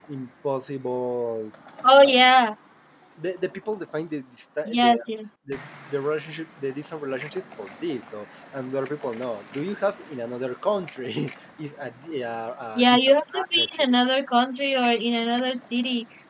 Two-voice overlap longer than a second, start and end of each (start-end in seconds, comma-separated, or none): 12.8-13.9